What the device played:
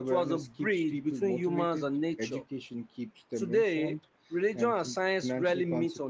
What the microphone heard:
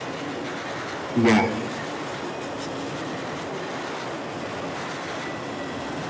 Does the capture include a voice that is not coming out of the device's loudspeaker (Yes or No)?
Yes